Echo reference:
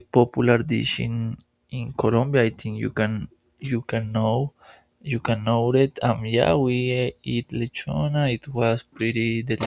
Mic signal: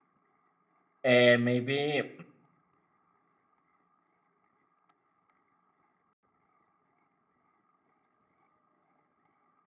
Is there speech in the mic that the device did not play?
Yes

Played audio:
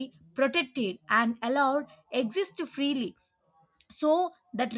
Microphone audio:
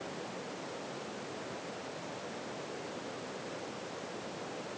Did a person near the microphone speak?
No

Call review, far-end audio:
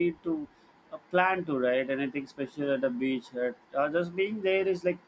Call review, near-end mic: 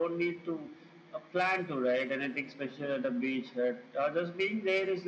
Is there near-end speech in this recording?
No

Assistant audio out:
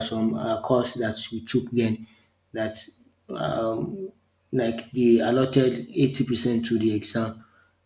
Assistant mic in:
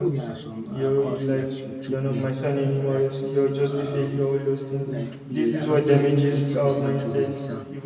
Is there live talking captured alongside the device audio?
Yes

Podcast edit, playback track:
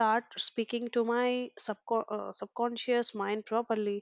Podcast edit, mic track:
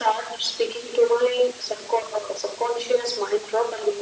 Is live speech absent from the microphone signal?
Yes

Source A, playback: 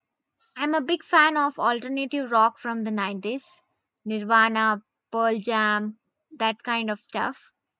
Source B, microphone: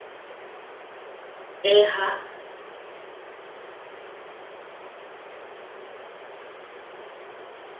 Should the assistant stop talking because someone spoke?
Yes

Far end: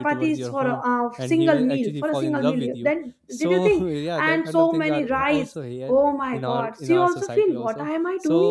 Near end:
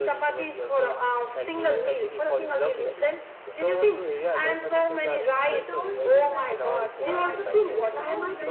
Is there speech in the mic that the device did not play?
Yes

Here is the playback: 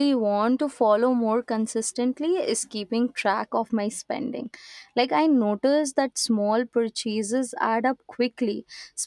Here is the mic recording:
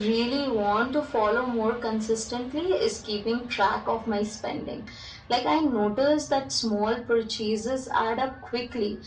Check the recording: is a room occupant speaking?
No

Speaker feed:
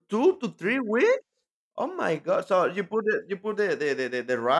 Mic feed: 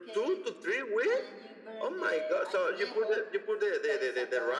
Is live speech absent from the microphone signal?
No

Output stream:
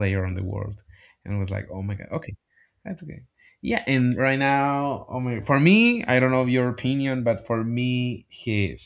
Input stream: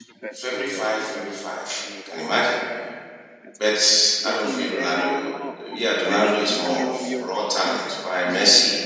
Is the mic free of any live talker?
No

